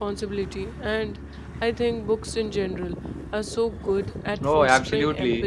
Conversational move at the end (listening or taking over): taking over